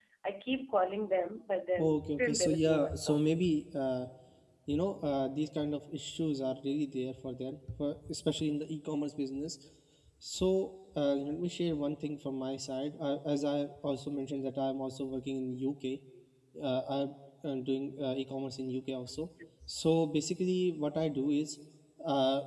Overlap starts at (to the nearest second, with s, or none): 2 s